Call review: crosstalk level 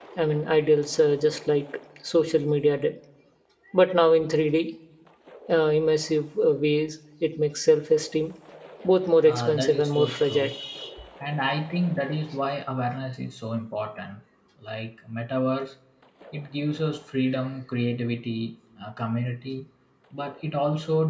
present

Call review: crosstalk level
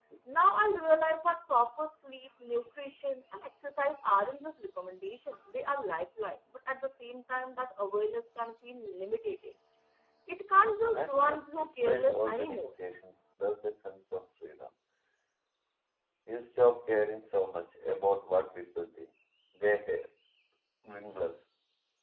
present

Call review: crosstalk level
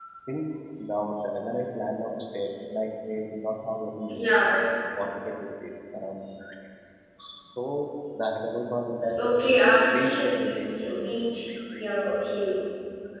present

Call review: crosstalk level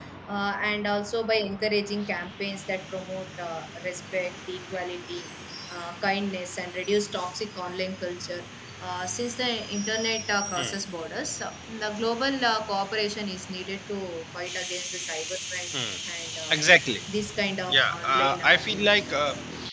present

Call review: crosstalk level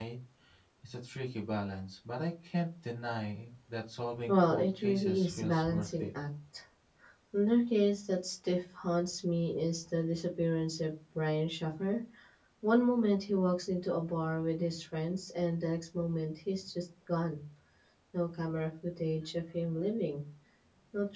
present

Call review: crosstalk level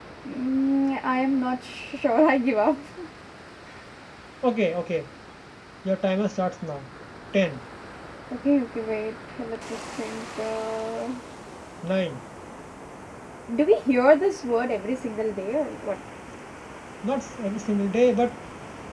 none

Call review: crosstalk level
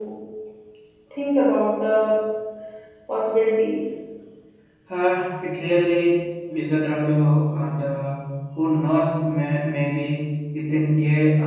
none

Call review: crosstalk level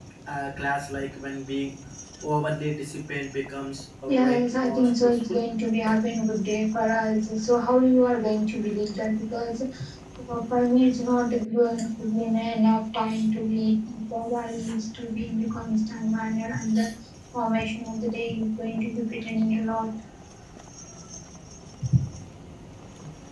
present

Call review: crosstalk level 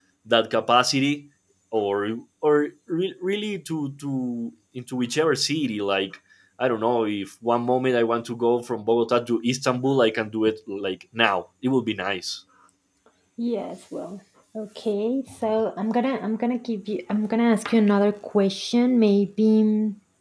none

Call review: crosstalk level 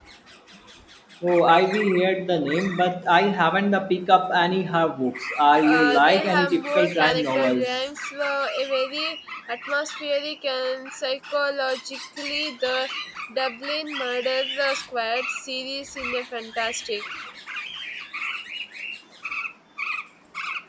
present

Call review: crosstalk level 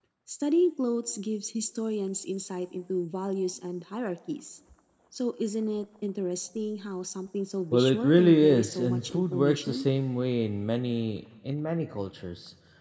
present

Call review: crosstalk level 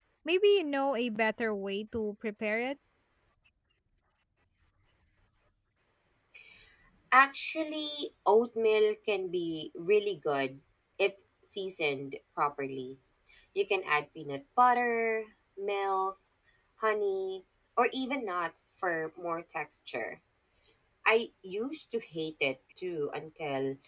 none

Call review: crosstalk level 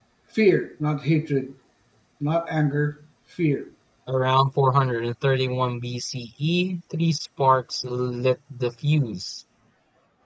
none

